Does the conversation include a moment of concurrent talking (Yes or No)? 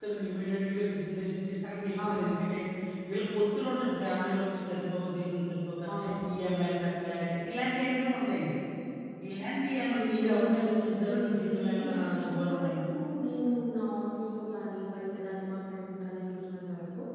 Yes